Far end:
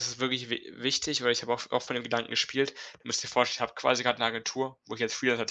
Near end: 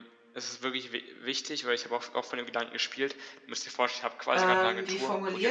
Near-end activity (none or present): present